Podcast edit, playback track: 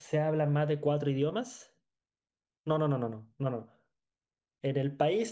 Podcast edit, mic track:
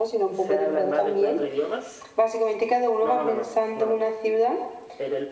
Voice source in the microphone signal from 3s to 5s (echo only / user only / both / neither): both